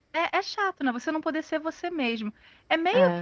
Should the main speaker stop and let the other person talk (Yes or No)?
No